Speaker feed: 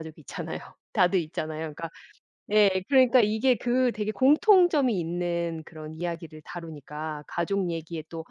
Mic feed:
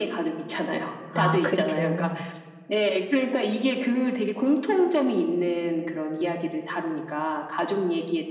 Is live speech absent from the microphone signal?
No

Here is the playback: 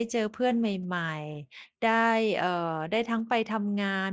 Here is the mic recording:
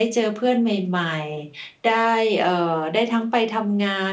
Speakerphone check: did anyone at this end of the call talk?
No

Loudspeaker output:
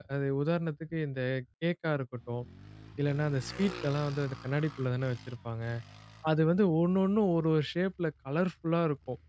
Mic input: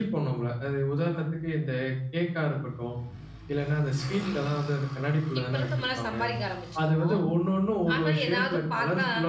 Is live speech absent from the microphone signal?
No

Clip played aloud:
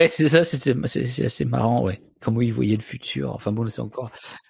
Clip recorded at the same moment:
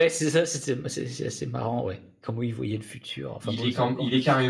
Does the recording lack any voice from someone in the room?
No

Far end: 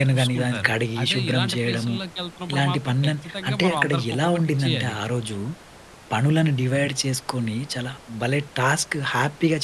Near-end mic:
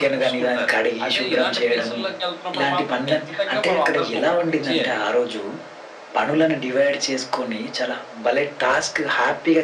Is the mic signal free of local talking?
Yes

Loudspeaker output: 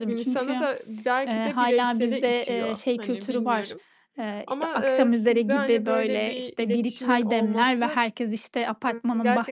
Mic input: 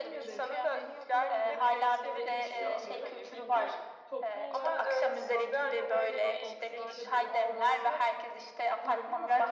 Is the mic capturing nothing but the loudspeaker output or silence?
No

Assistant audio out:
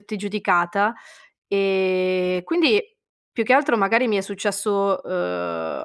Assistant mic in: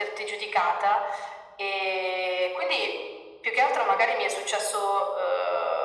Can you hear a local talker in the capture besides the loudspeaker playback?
No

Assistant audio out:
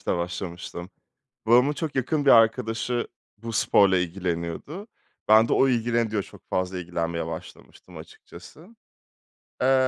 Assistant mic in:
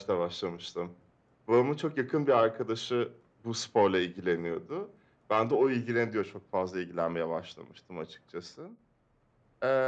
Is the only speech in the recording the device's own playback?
Yes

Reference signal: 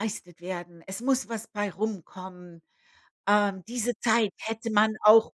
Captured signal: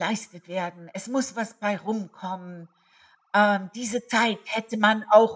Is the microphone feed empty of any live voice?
Yes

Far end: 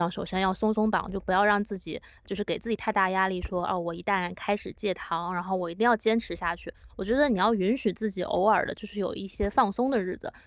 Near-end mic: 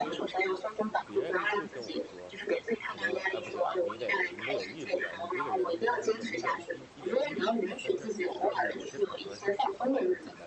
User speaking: Yes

